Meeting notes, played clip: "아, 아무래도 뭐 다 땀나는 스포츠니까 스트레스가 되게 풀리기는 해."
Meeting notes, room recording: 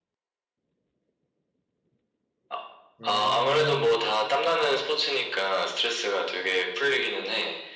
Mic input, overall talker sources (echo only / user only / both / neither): both